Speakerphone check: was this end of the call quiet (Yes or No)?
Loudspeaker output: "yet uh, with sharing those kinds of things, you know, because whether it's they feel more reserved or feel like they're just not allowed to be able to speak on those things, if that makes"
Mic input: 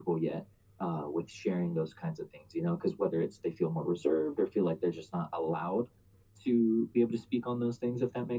Yes